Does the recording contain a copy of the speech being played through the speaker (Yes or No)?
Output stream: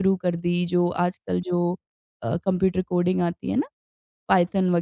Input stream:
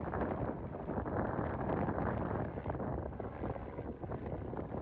No